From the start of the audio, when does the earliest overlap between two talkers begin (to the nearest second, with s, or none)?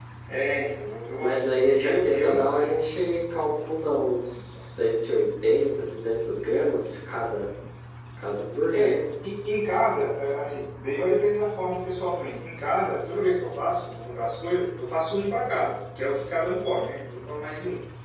1 s